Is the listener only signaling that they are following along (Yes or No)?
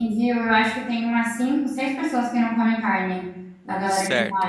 No